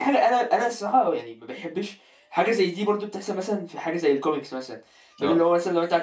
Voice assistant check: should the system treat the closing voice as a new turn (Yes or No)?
No